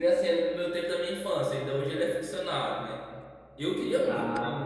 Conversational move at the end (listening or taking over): listening